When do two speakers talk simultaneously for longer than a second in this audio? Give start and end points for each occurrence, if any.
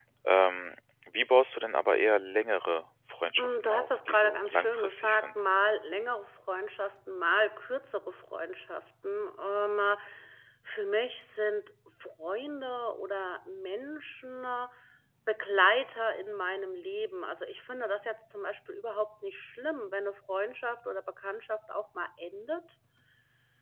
3.4-5.3

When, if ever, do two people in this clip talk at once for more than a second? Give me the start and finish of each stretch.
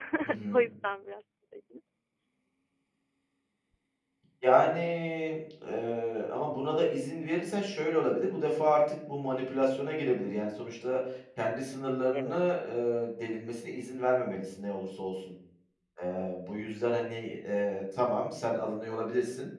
none

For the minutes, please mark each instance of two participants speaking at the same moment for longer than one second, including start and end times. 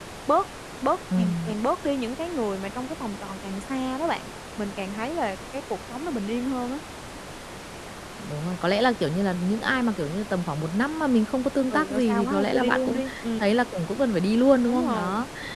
11.7-13.0

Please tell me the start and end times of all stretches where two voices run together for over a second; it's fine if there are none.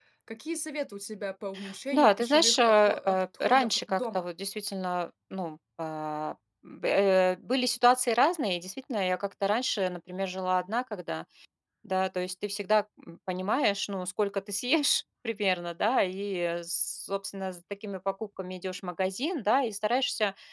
1.9-4.2

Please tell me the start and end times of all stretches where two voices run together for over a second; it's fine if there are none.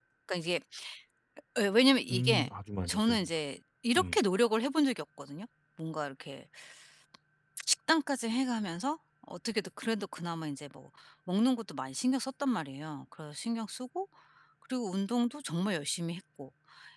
none

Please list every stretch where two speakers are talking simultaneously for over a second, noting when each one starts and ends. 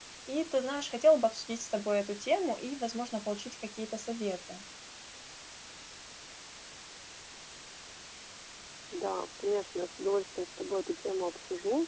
none

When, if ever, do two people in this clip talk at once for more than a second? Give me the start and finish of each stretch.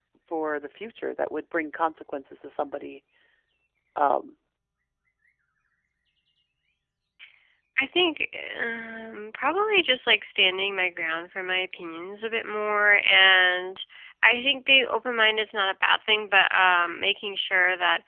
none

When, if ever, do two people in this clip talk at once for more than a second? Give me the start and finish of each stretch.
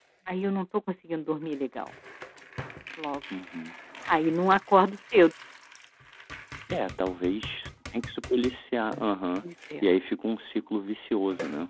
none

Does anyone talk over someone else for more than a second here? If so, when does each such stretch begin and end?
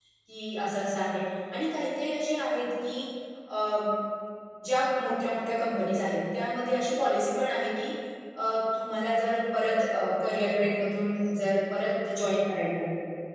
none

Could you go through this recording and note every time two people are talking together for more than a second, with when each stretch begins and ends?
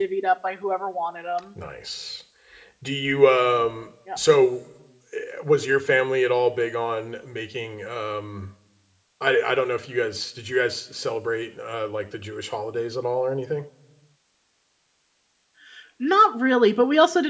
none

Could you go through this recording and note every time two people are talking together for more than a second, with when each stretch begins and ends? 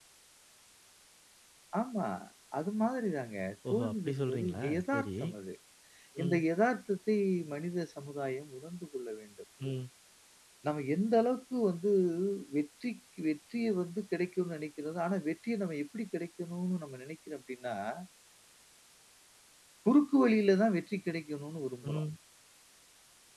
3.7-5.1

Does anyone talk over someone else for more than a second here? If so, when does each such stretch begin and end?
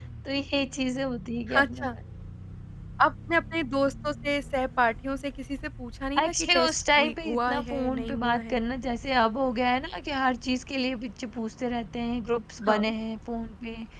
6.2-8.6

